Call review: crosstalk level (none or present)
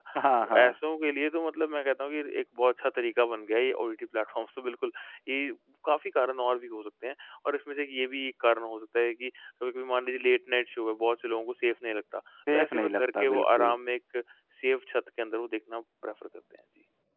present